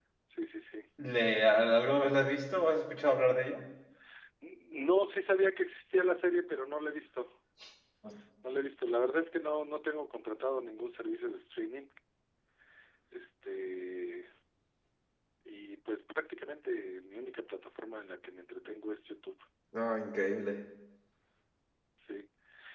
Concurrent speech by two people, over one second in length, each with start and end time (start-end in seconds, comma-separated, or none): none